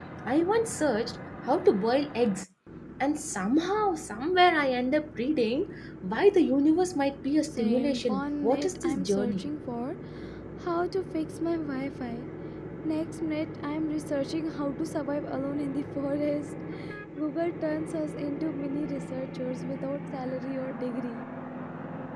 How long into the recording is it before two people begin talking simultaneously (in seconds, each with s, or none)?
7.5 s